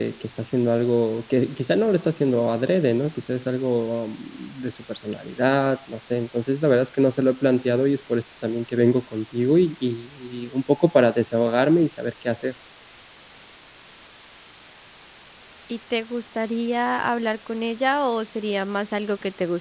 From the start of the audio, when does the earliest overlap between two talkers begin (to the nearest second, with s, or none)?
none